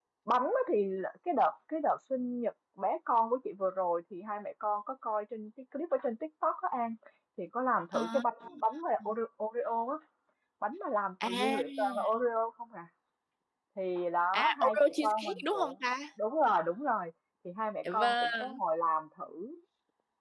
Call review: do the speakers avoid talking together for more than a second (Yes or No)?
No